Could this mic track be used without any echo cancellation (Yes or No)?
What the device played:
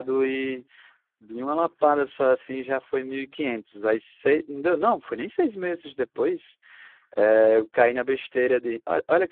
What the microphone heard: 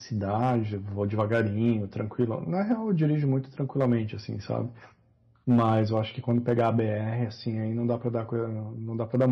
Yes